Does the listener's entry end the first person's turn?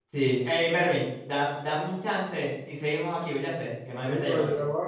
Yes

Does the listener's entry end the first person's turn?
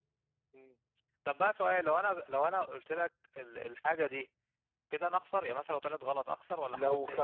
Yes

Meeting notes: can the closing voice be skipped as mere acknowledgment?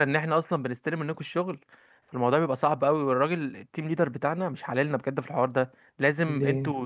Yes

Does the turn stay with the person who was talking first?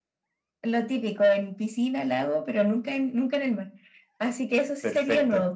Yes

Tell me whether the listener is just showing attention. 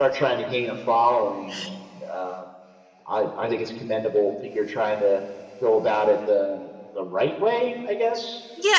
No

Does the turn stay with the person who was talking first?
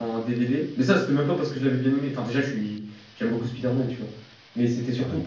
Yes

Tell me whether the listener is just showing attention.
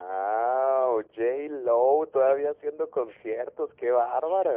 No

